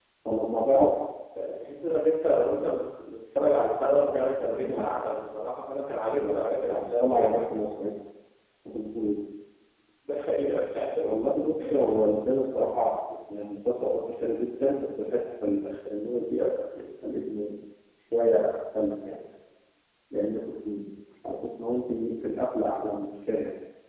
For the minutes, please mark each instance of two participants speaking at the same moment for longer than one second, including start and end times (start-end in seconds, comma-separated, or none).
6.2-7.5